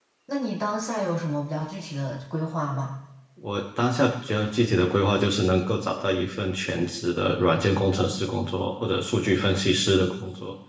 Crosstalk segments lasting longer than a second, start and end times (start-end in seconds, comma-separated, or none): none